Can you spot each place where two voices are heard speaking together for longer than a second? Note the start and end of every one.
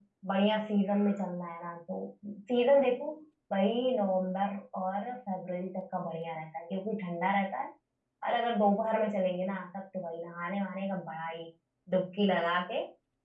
none

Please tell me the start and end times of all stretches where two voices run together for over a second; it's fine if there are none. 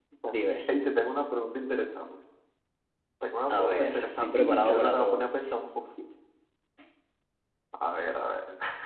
3.5-5.3

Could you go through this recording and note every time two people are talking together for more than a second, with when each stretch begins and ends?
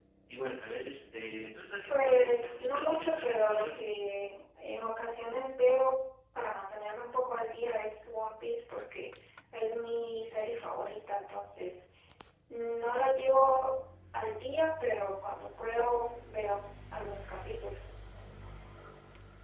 1.9-3.8

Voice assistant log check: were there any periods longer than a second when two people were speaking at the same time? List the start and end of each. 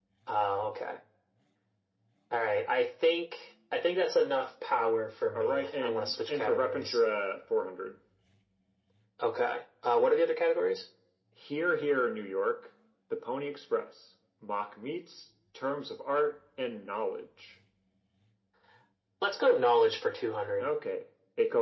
5.4-7.0

